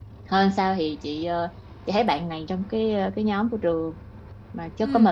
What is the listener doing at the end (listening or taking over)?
listening